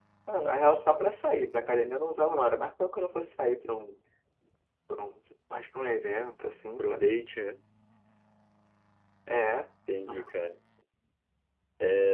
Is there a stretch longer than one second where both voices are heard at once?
No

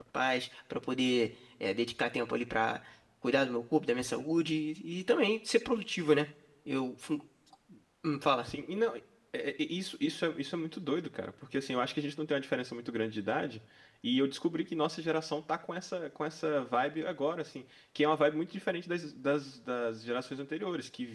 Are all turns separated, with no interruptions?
Yes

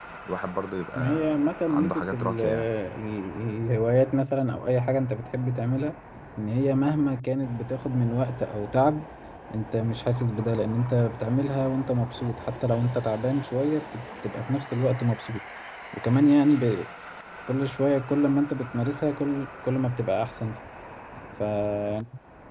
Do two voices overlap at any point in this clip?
Yes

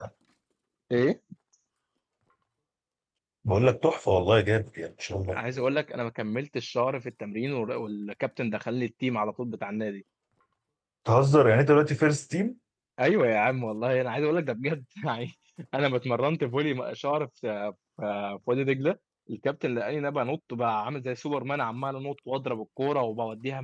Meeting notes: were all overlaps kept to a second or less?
Yes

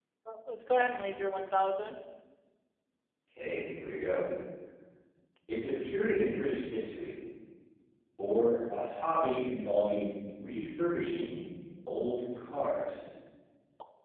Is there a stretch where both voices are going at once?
No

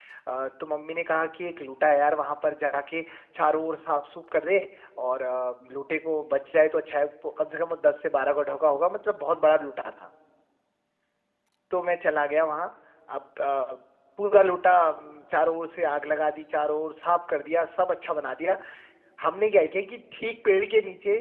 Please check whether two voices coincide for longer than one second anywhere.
No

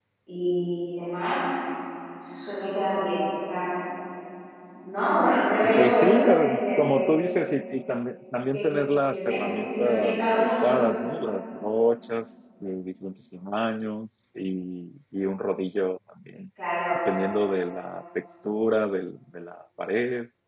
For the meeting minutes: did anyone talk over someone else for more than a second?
Yes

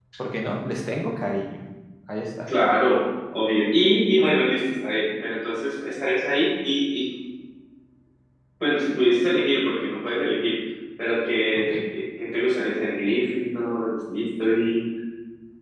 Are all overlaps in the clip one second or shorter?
Yes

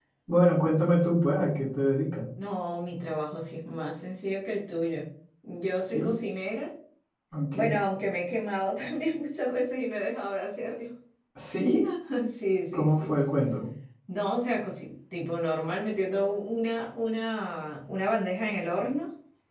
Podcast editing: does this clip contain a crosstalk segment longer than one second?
No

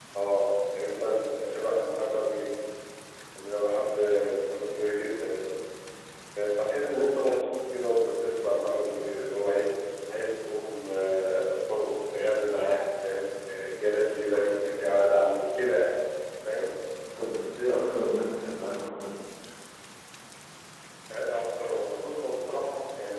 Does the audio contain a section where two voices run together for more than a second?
No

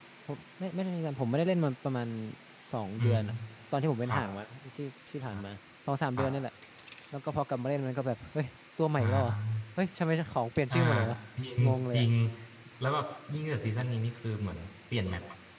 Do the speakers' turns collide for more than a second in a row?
No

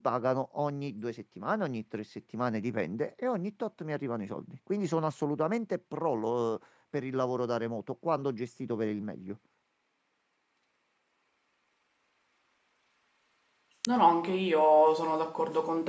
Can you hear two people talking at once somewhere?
No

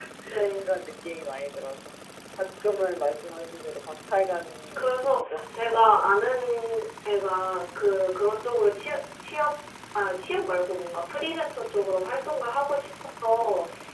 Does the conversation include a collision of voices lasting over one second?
Yes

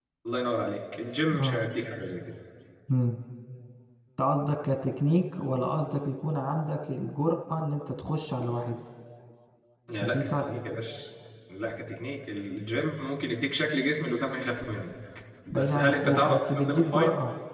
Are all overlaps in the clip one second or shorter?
No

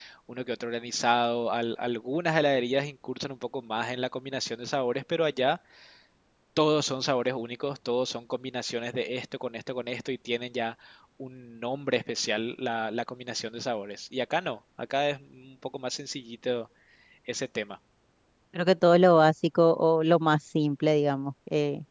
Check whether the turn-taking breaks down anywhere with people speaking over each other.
No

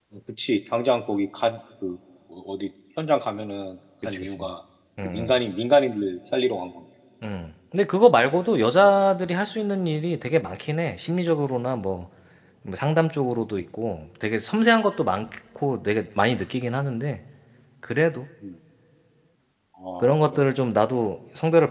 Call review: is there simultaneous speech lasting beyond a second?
No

